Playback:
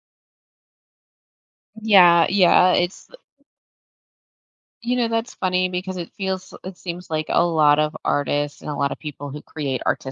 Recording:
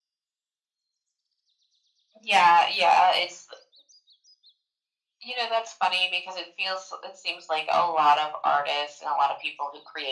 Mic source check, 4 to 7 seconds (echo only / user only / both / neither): echo only